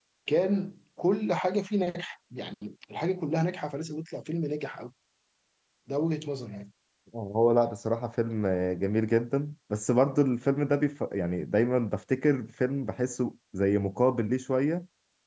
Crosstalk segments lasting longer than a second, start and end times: none

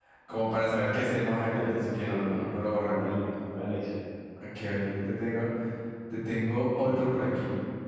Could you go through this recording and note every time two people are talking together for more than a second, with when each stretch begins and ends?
1.5-3.1

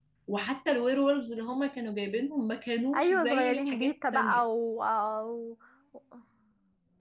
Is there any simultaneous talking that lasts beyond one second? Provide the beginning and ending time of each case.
2.9-4.4

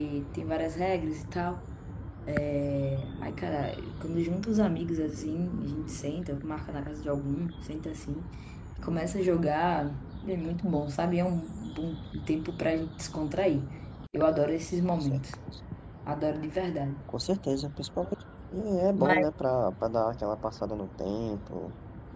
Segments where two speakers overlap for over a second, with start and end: none

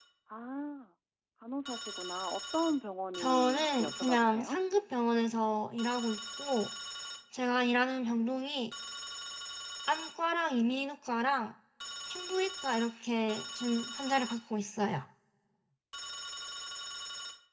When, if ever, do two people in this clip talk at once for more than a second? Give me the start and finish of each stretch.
3.2-4.6

